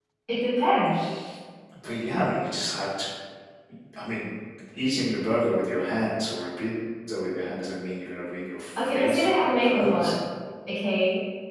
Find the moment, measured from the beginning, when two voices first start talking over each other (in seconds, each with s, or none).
8.8 s